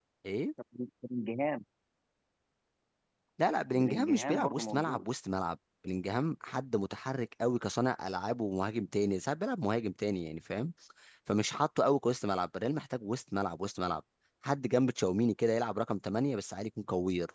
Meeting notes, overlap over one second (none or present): present